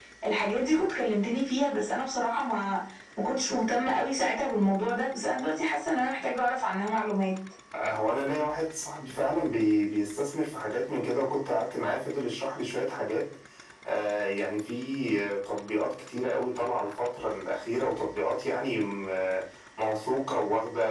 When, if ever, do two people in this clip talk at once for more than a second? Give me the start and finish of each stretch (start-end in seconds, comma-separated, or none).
none